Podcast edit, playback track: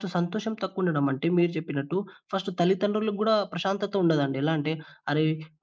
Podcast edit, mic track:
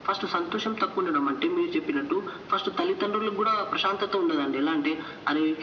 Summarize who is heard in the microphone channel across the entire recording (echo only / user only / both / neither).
echo only